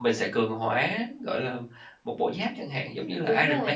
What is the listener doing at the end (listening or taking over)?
taking over